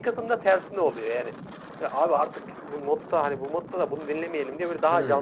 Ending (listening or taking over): listening